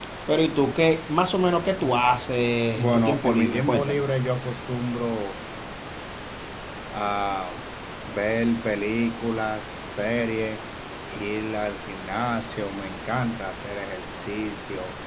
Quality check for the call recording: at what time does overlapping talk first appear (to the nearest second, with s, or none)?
3 s